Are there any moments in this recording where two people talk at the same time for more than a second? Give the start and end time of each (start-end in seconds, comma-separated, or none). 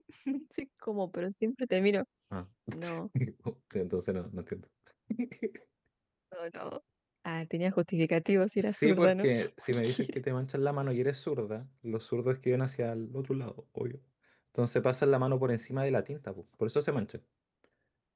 8.6-10.1